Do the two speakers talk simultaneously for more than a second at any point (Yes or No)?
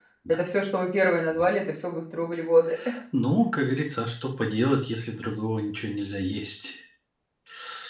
No